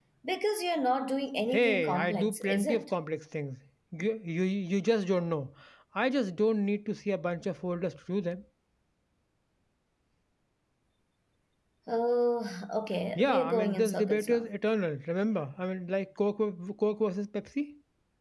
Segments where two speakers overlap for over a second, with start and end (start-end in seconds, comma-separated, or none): 1.5-2.8, 13.2-14.5